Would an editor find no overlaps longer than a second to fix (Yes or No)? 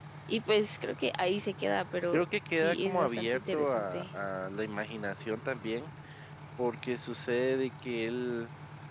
No